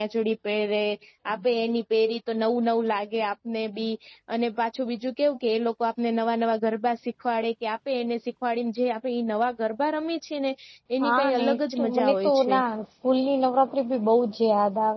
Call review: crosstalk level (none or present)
present